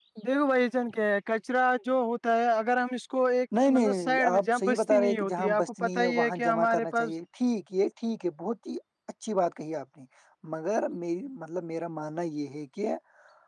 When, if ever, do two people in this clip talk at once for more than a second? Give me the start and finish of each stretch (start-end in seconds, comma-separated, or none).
3.6-7.1